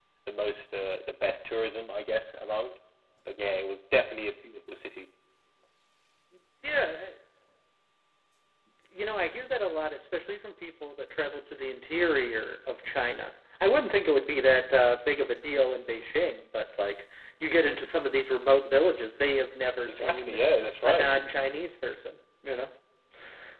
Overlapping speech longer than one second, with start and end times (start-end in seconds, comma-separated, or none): none